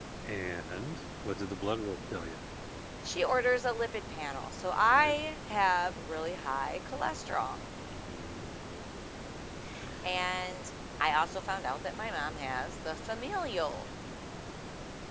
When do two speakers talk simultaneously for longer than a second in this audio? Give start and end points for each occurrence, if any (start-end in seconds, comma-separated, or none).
none